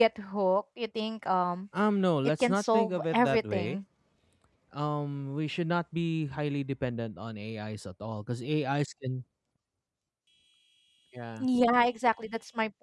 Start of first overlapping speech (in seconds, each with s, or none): 2.2 s